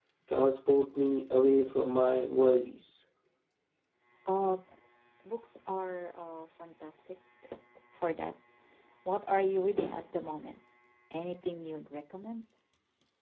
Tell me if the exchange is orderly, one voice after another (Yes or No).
Yes